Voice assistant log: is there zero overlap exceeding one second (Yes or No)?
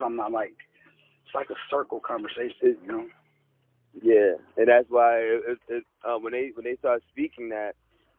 Yes